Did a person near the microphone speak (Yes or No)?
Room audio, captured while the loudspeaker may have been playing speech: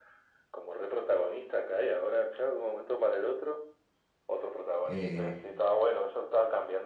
Yes